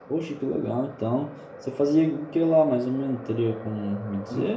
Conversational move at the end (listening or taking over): taking over